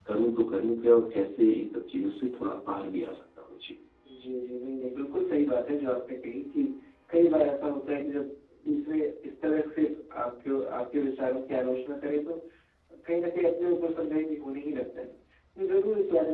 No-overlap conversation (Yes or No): Yes